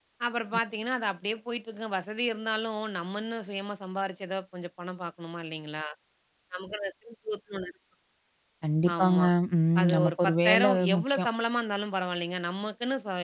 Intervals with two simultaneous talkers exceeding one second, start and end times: 9.8-11.3

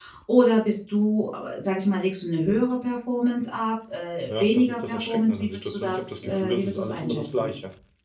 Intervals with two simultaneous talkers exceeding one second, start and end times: 4.3-7.5

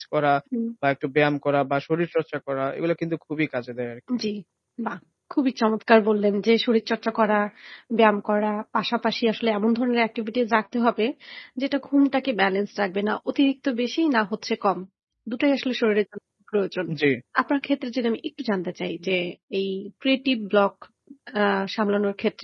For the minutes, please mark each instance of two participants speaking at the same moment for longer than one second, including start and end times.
none

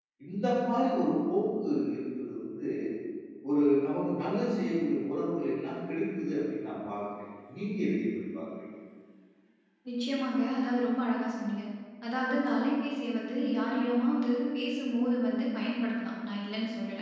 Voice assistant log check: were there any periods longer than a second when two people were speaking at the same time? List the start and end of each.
none

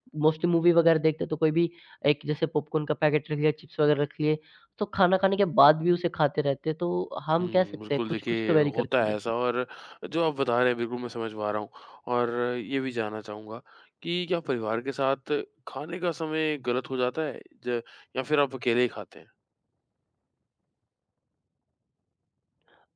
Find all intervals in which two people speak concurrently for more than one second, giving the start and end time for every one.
7.4-9.2

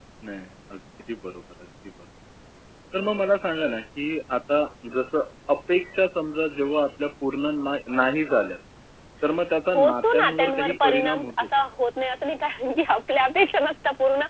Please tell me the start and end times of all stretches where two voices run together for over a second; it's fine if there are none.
9.7-11.5

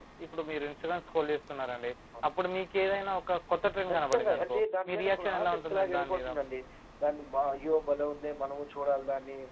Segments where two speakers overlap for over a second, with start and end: 3.9-6.2

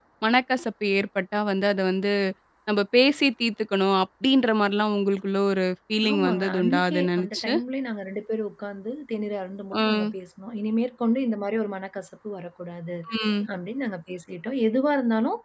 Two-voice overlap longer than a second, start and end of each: 6.1-7.5

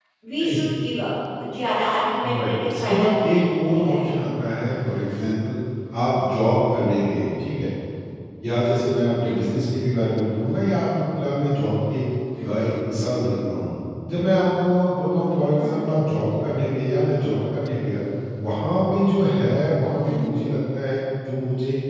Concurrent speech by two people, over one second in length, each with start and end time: 2.3-4.0

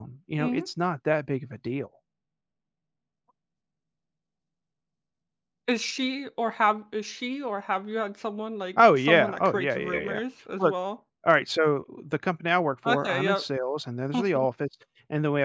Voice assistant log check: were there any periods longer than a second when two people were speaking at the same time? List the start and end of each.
8.8-10.2

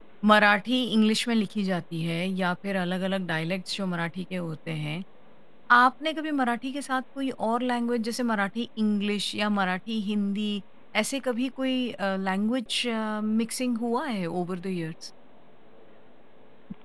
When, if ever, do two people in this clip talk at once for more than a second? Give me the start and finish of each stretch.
none

